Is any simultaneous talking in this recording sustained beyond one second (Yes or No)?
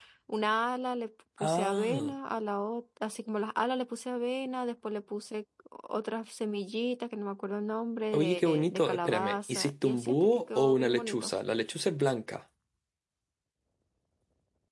Yes